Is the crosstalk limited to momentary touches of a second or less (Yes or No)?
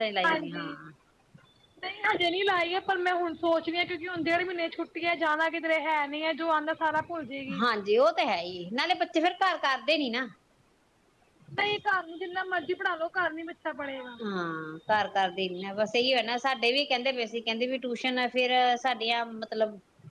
Yes